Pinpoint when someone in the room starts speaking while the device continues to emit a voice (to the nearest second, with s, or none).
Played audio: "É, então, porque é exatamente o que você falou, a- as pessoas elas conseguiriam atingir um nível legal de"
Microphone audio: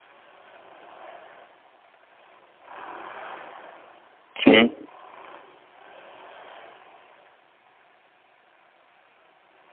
4 s